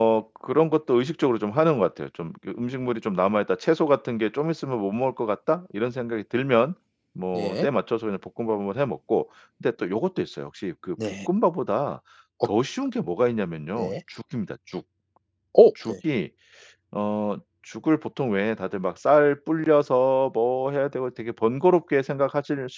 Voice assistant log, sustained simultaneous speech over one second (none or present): none